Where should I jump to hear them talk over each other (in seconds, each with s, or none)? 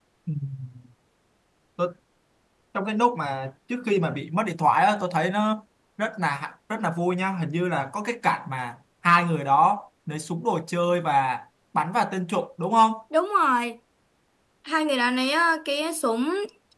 none